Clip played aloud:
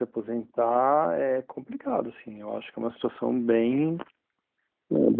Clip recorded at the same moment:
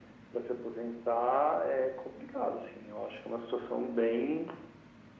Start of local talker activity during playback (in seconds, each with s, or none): none